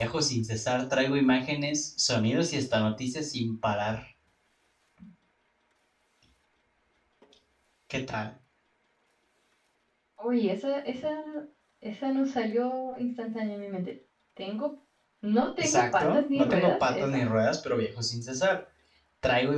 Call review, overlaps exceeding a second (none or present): present